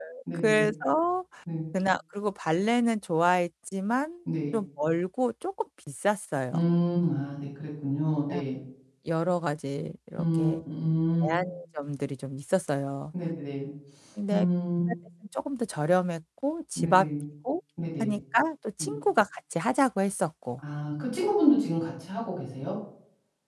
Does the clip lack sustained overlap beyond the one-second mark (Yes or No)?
Yes